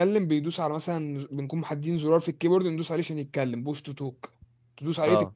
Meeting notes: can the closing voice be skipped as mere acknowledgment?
Yes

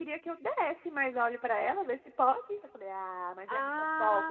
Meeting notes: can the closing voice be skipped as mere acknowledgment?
No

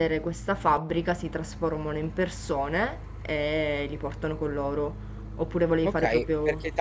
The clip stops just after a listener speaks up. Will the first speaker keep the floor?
No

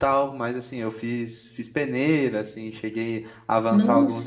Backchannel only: Yes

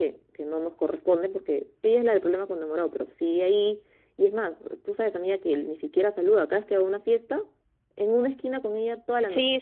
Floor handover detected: Yes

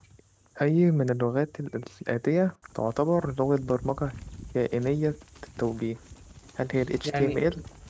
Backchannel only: No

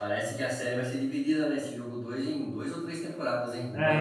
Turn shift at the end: Yes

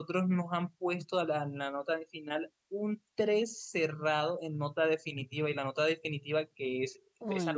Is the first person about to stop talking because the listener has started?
No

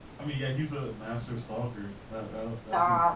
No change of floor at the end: No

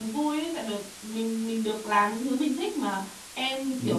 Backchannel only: Yes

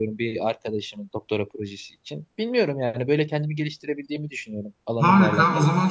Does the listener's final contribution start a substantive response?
Yes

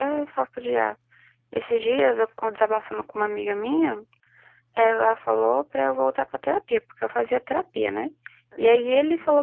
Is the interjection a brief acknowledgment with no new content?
Yes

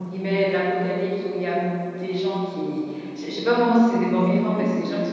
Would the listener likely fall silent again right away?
Yes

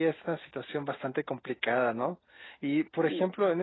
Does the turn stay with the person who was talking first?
Yes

